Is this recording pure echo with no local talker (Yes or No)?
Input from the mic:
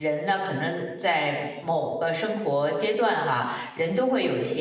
No